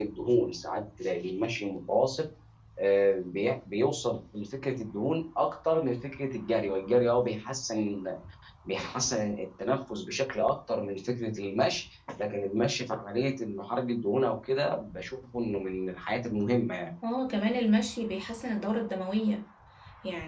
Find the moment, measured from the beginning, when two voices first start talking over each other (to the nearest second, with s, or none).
none